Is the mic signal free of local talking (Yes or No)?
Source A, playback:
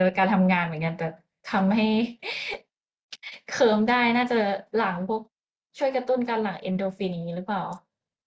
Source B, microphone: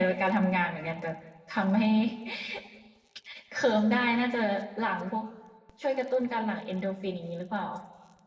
Yes